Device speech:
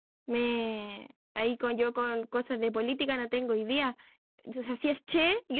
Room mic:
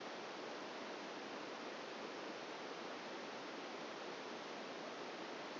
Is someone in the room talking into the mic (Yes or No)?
No